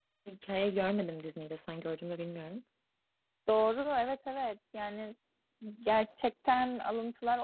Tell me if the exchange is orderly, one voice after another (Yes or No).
Yes